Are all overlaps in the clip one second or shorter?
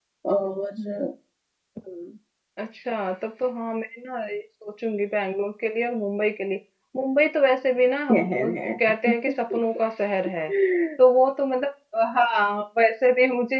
Yes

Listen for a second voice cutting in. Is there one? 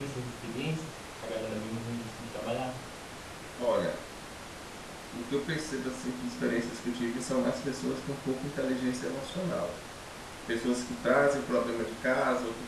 No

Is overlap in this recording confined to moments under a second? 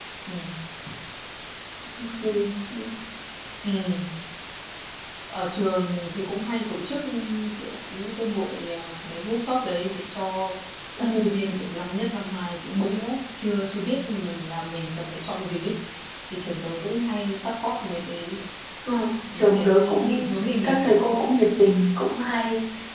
No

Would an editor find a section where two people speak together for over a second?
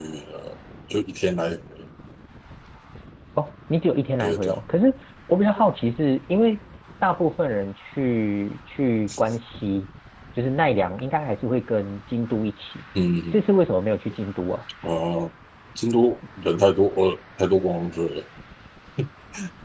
No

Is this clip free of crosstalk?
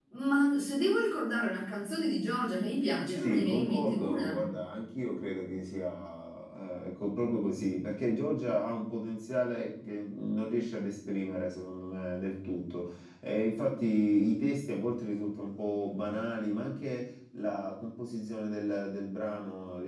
No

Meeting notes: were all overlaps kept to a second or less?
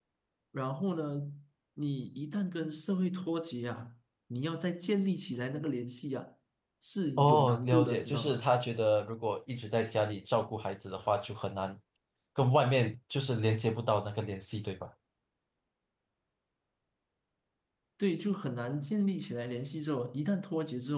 No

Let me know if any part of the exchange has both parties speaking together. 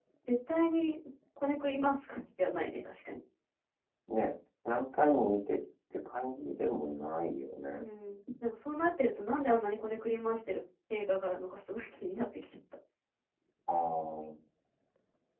No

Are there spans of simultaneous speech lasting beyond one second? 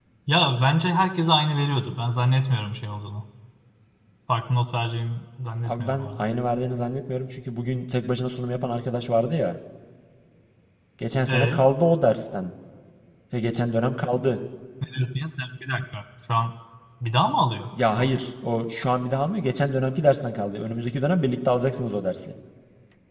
No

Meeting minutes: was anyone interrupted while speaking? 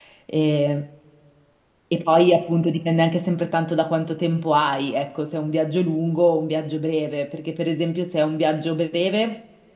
No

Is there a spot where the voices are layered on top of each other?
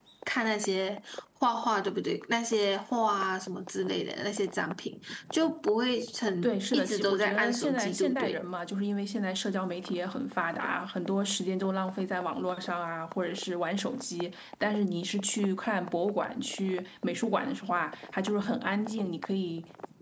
Yes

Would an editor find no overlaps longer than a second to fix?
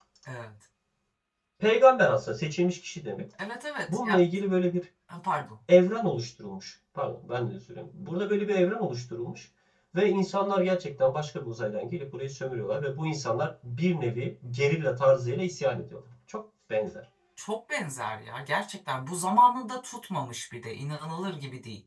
Yes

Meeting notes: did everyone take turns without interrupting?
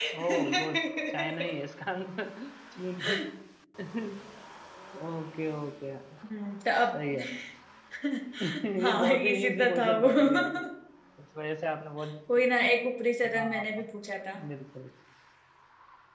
No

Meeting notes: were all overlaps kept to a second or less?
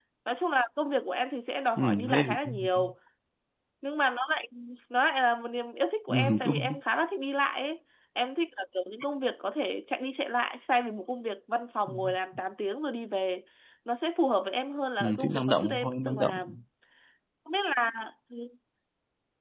No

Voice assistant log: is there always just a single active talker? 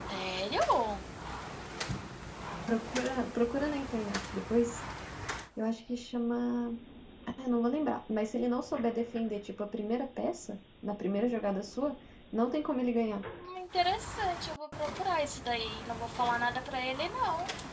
Yes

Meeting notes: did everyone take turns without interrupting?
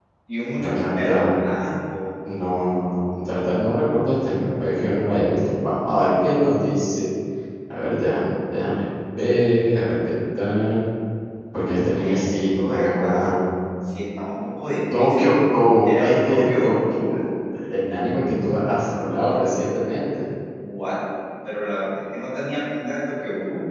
No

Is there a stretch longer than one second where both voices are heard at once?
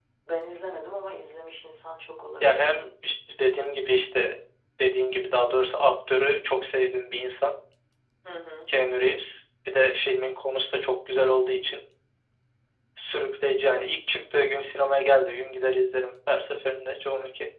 No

